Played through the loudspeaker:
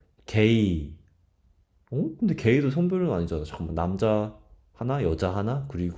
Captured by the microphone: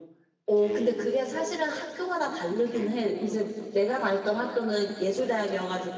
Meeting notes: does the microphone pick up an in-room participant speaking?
Yes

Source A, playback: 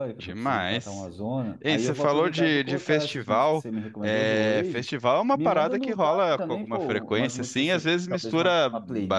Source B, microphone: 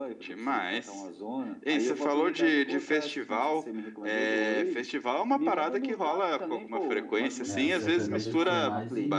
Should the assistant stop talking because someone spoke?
Yes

